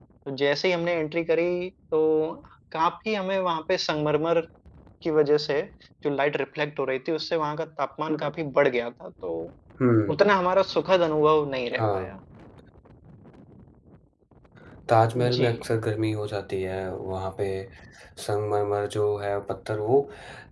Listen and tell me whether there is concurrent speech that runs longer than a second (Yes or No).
No